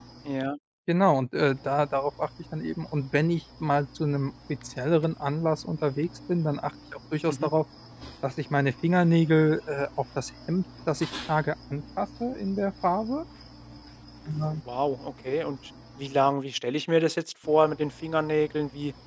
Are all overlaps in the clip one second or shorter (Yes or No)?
Yes